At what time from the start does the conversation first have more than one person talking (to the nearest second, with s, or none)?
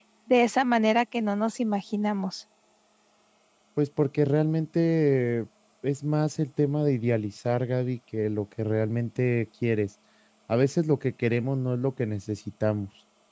none